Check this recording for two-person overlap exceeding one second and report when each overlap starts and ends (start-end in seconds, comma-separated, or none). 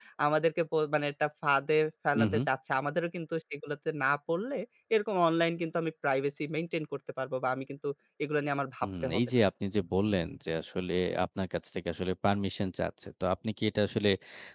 none